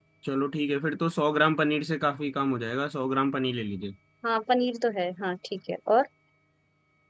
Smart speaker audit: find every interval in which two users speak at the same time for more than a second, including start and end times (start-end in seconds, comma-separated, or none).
none